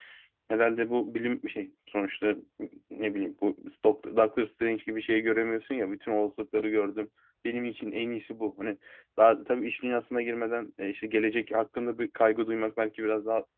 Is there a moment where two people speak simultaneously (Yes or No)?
No